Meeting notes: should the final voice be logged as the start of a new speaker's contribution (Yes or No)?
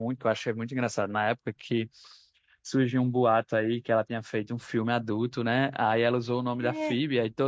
No